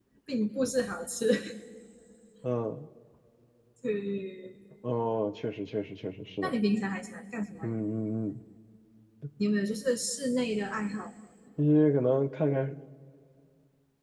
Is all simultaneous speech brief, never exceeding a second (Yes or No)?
Yes